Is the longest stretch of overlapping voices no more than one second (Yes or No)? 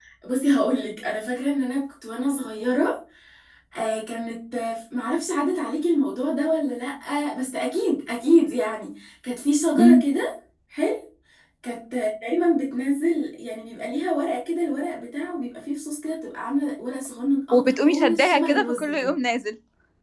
No